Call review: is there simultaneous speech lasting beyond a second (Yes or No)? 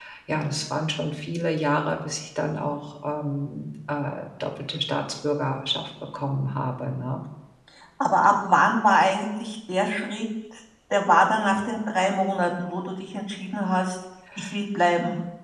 No